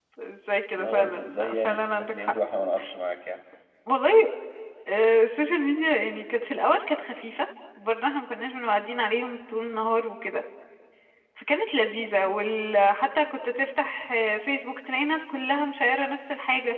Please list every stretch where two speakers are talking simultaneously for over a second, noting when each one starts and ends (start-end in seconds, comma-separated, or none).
0.8-2.3